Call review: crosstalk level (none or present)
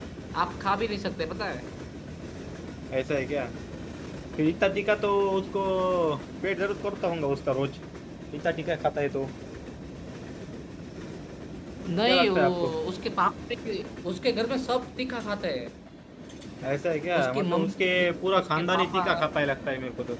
present